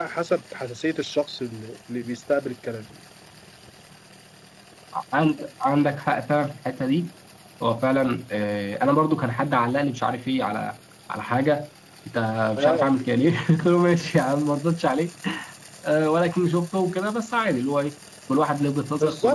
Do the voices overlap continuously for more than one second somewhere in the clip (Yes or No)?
No